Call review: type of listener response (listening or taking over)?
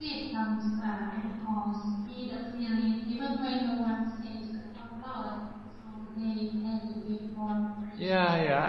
taking over